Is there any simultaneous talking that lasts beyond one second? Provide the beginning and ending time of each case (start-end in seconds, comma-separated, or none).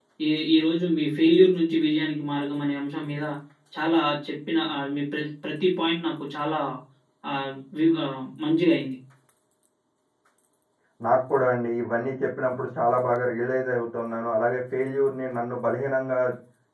none